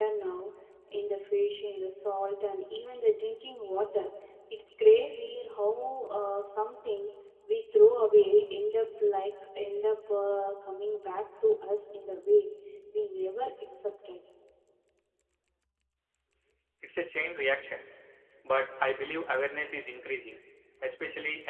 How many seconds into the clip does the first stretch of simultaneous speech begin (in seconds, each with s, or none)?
none